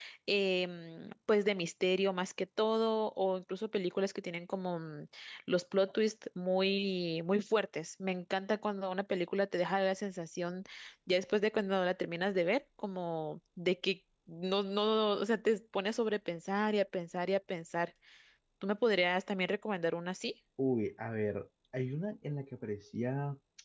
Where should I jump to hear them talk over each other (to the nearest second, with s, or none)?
none